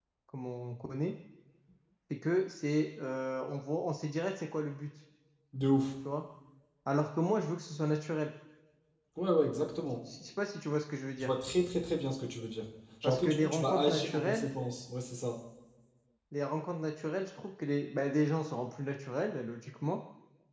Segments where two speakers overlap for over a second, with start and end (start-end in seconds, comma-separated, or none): 13.0-14.5